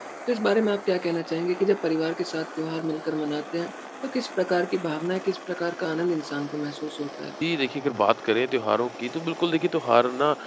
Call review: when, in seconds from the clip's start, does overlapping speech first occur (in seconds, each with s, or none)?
none